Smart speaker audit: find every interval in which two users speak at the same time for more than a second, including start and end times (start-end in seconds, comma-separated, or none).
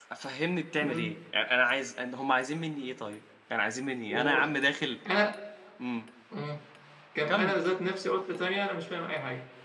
none